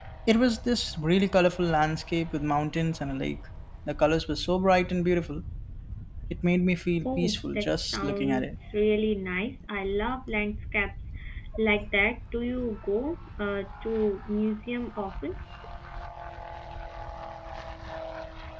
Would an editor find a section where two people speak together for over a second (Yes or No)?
Yes